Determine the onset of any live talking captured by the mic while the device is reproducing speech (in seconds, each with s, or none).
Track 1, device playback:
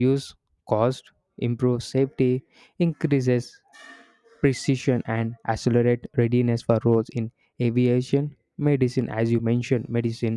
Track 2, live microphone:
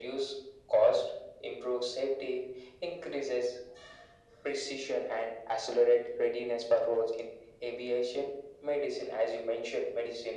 none